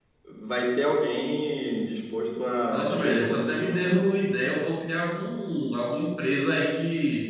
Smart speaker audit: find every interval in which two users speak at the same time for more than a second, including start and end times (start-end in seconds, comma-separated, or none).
2.7-3.9